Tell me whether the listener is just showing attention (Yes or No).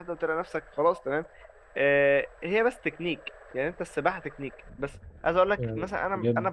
Yes